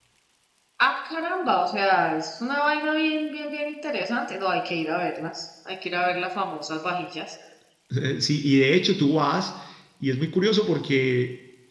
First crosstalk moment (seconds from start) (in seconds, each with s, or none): none